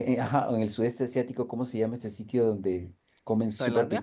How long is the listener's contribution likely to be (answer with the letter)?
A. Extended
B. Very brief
B